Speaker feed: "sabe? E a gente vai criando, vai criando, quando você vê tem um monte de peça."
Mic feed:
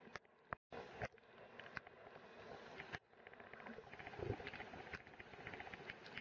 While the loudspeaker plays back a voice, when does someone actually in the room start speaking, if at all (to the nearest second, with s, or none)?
none